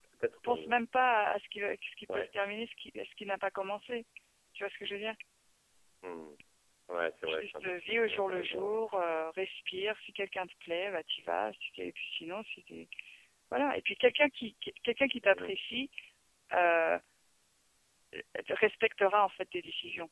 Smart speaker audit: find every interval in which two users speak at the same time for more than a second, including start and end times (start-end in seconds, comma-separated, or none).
7.3-8.8